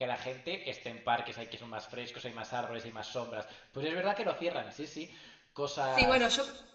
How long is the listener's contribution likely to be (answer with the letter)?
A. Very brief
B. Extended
B